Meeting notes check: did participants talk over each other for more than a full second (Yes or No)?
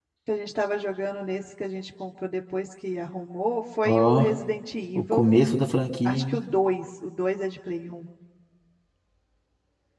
No